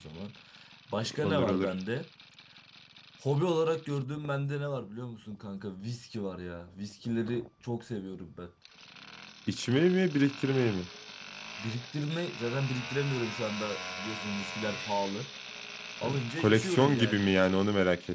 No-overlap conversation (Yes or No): No